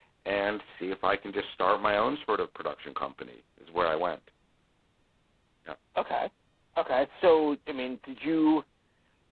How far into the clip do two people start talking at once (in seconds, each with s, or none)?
none